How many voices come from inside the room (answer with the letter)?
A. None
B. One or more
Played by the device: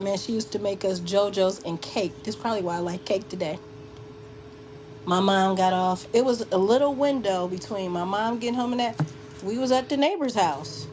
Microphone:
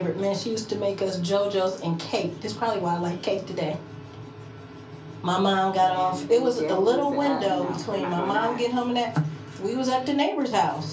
B